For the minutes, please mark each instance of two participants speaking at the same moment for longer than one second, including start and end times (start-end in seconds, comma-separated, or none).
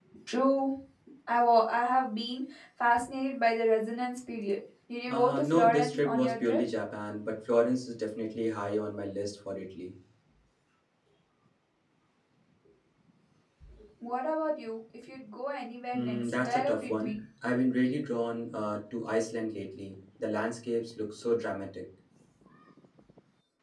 5.1-6.6, 15.9-17.1